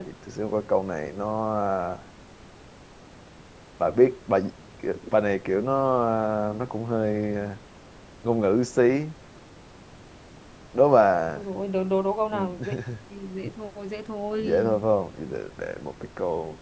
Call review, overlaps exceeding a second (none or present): none